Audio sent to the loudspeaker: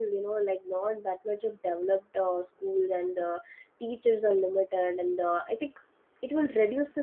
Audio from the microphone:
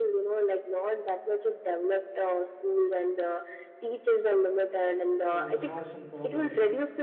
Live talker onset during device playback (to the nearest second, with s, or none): 5 s